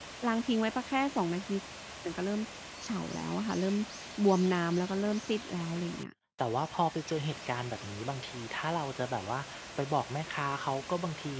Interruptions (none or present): none